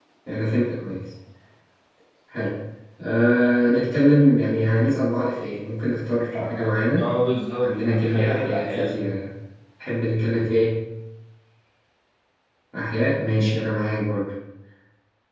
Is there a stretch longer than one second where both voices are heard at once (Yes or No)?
Yes